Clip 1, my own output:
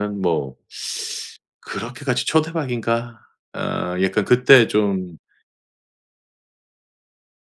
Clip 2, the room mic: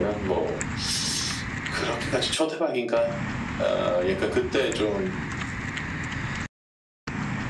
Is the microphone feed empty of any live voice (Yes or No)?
Yes